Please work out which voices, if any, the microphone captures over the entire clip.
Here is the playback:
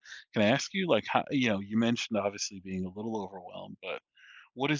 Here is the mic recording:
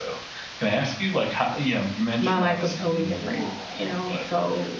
both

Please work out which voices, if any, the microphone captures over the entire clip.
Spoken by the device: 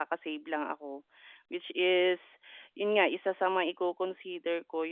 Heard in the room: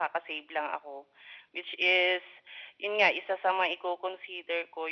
echo only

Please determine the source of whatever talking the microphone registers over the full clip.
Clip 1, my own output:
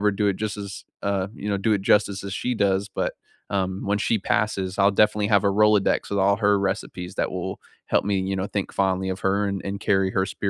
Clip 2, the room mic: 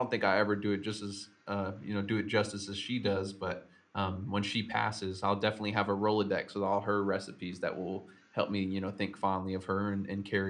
echo only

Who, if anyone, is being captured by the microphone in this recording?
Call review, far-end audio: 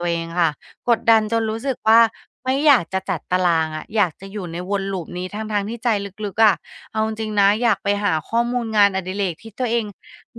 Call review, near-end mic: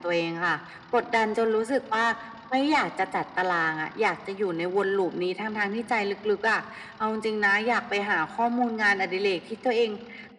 echo only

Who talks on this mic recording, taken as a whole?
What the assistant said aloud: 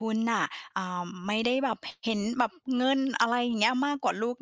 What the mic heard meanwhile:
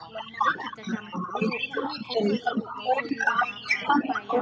both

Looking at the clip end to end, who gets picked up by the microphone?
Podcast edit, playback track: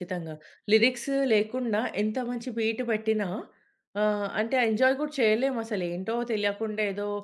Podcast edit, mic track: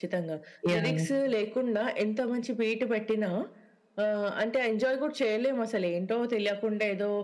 both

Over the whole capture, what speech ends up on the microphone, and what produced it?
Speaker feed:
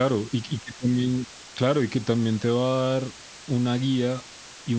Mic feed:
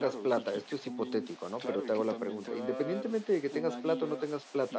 both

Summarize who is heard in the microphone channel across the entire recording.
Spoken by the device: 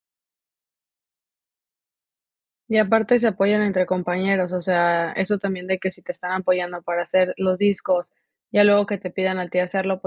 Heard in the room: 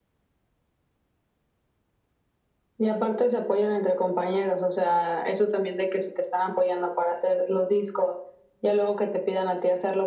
echo only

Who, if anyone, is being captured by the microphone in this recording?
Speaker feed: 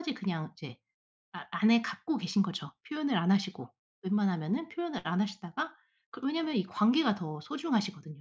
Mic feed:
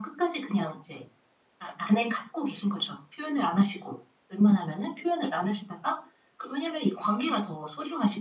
echo only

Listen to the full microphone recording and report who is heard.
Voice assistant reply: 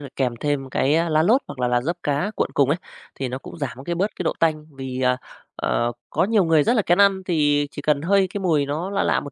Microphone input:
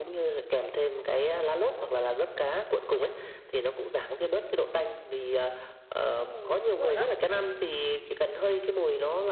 both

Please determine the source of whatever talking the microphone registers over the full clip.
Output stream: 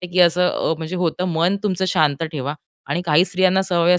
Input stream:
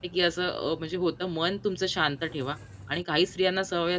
echo only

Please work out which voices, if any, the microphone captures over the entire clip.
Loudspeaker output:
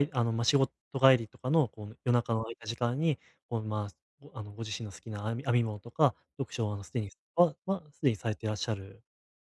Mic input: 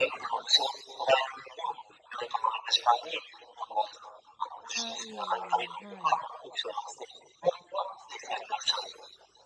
both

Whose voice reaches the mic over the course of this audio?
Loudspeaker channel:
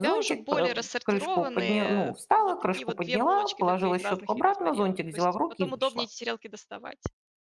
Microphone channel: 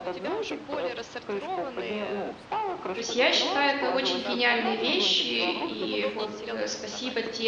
both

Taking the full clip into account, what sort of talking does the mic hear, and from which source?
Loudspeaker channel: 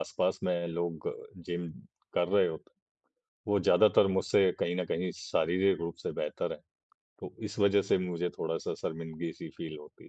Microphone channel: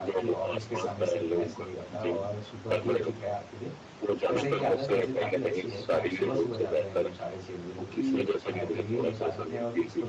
both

